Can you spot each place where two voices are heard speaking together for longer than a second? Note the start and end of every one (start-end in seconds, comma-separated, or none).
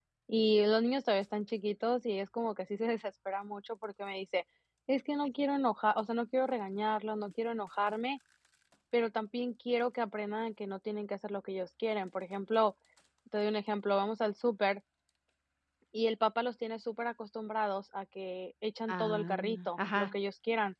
18.9-20.1